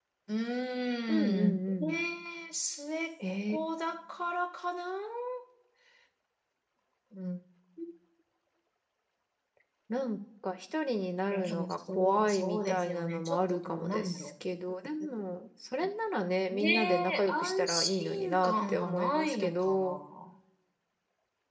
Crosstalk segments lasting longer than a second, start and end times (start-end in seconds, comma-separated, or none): 11.3-14.3, 16.5-20.0